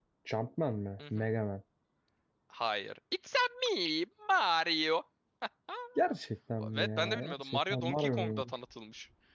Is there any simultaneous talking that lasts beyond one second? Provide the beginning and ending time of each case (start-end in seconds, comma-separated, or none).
6.7-8.5